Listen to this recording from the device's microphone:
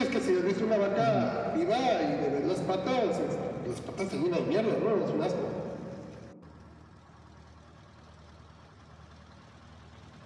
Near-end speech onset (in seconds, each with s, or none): 1.0 s